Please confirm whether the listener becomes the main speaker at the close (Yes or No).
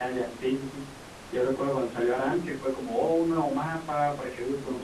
No